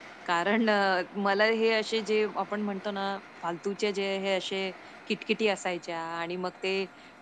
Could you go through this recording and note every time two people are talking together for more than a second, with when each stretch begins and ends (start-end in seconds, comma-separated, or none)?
none